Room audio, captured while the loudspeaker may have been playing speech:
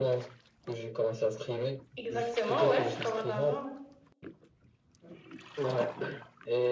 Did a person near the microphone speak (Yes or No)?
Yes